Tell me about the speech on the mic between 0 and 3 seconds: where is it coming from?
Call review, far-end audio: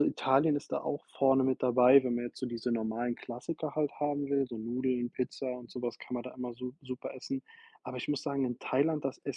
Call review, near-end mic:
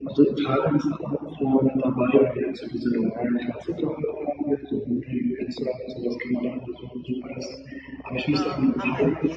echo only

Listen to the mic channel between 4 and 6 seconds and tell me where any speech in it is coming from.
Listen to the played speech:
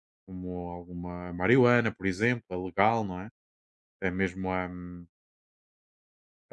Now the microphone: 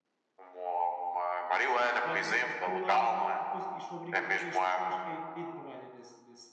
both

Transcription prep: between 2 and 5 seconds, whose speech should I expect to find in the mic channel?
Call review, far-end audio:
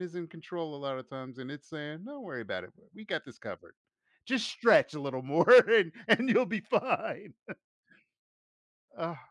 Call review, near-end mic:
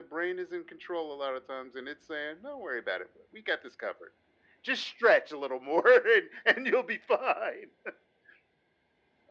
echo only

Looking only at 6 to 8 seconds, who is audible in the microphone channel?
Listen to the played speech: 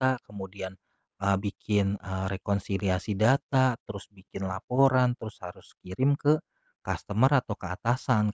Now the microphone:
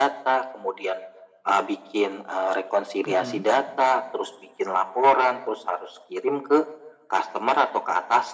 echo only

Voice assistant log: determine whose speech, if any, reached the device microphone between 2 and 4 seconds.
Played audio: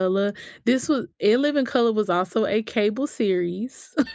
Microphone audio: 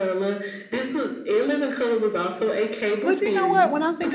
both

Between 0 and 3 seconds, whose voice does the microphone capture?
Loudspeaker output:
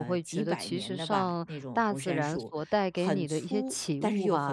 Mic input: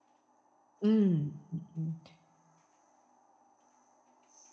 user only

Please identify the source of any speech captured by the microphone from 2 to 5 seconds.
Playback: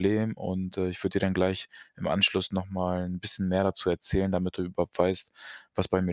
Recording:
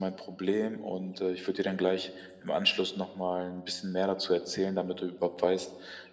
echo only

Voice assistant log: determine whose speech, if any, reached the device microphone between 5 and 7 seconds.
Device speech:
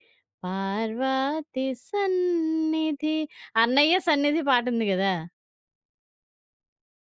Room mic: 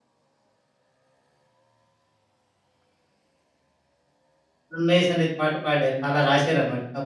user only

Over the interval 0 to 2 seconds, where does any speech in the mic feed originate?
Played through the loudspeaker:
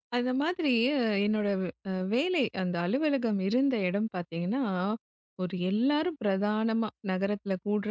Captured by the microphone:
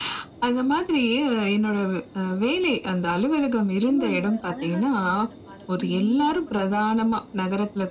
echo only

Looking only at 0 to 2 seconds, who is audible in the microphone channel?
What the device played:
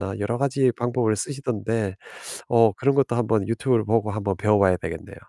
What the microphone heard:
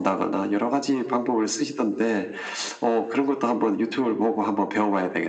echo only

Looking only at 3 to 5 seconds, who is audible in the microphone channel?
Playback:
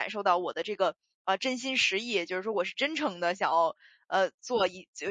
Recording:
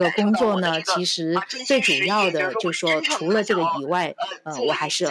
both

